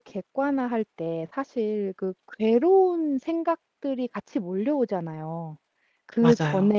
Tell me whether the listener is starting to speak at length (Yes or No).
No